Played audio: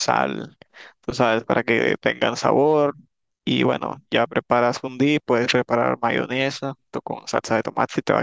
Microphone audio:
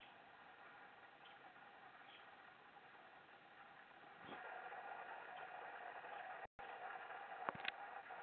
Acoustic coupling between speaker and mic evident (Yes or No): No